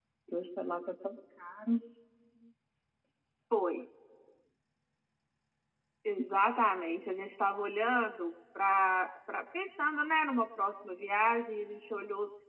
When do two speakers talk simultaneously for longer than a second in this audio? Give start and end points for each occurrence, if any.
none

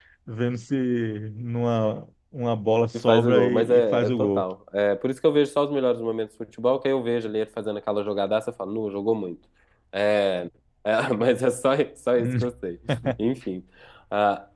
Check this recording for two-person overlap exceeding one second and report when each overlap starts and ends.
3.0-4.4

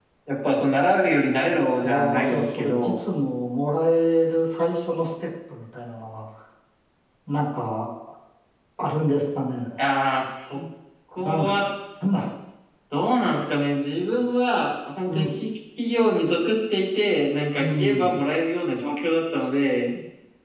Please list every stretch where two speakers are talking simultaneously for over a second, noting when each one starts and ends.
1.8-3.0

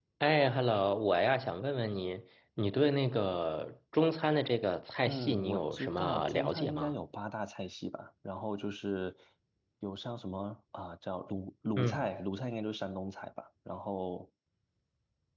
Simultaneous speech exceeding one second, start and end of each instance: 5.0-6.9

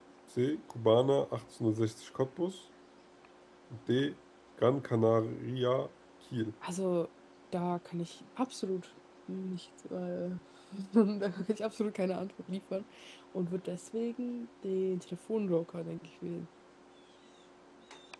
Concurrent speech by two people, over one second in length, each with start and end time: none

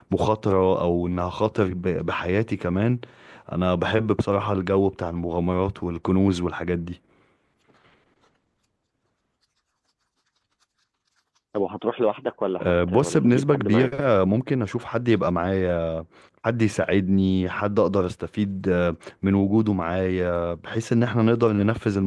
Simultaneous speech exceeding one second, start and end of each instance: 12.6-13.9

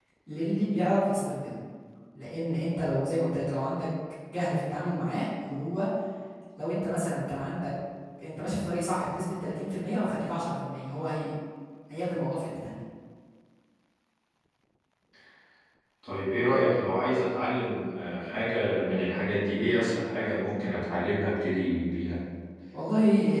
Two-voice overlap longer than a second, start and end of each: none

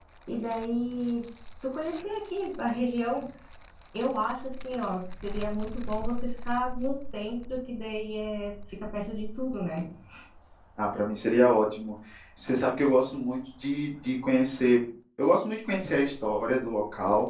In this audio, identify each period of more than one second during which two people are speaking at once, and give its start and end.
none

